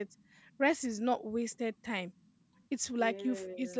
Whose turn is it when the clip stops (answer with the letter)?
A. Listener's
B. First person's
B